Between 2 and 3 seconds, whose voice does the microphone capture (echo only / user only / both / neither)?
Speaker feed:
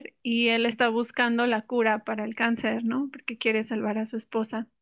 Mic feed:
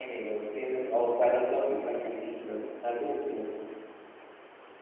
user only